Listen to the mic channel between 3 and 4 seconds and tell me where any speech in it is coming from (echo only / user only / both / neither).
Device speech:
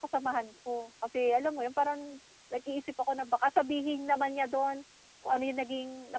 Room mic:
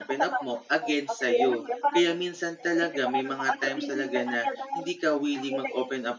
both